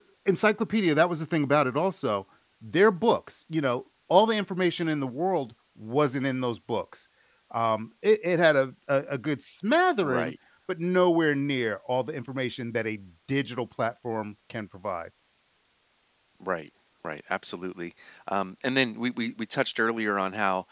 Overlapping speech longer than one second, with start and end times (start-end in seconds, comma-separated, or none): none